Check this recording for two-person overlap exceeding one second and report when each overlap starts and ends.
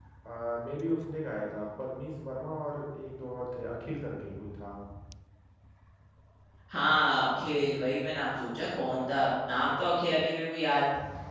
none

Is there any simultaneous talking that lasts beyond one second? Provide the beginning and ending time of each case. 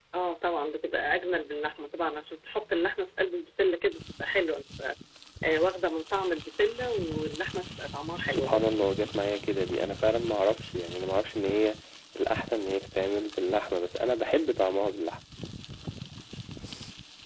none

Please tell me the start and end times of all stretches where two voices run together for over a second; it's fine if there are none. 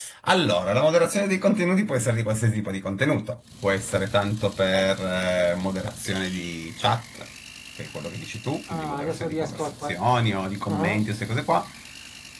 8.7-10.0

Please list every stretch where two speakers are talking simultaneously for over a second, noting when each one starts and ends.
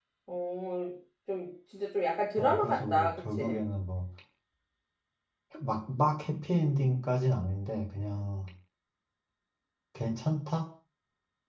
2.4-3.6

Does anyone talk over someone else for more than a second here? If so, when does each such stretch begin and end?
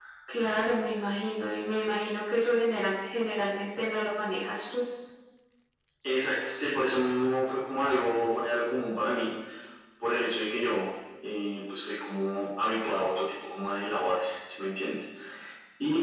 none

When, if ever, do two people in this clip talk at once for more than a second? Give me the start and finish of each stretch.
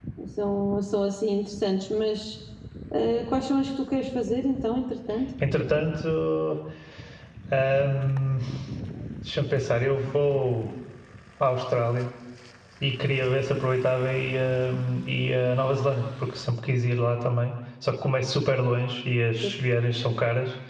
none

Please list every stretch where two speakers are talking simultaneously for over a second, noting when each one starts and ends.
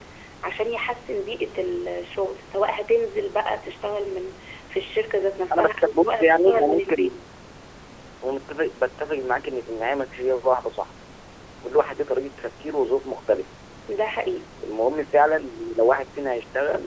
5.5-7.2

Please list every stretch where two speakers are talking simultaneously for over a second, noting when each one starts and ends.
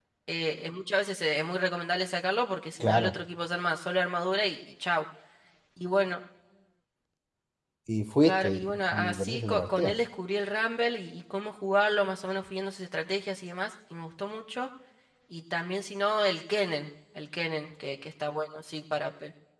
8.2-9.9

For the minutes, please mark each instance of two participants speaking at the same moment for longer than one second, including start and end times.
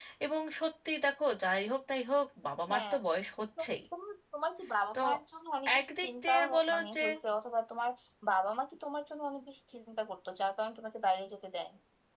5.8-7.0

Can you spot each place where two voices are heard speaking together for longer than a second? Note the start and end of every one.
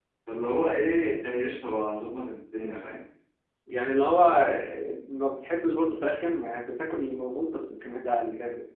none

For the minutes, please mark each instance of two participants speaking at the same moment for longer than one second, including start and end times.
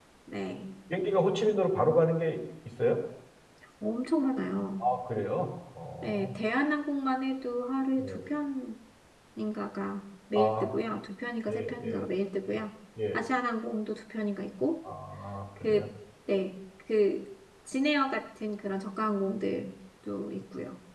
none

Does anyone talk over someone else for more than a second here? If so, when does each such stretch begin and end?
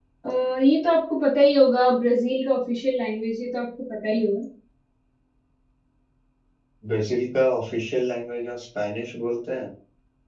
none

